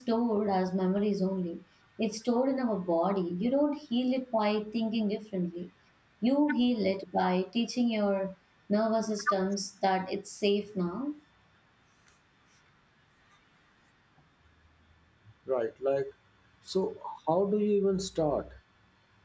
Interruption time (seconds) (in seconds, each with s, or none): none